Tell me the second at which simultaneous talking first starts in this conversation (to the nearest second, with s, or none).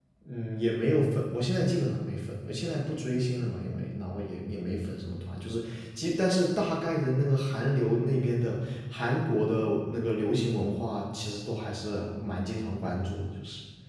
none